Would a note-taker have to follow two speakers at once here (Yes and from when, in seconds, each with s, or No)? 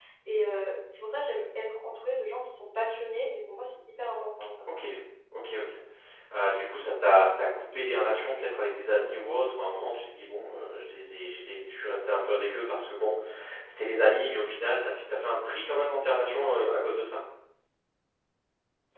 No